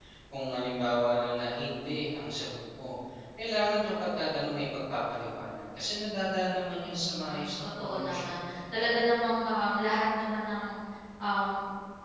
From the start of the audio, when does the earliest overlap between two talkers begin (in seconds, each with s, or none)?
7.0 s